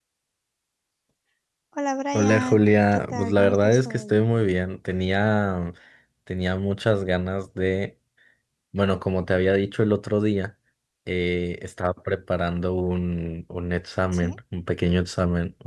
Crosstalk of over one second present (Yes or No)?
Yes